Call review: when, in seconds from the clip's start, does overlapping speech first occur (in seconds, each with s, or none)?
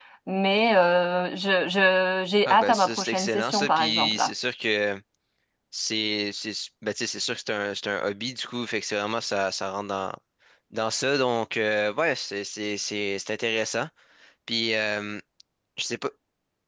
2.5 s